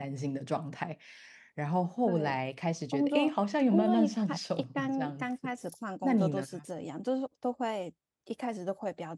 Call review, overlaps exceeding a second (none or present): present